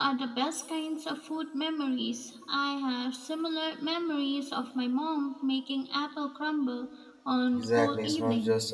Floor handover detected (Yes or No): Yes